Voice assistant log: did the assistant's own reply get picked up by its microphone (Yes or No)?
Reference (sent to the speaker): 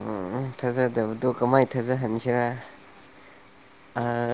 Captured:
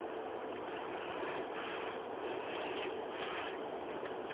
No